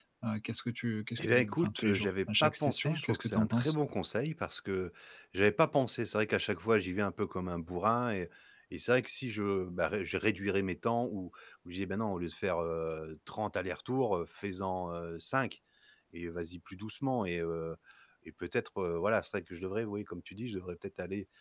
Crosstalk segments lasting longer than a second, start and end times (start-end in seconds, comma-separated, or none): 1.2-3.7